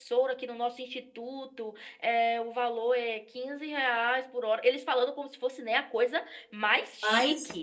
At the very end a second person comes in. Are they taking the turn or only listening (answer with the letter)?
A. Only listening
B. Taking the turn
A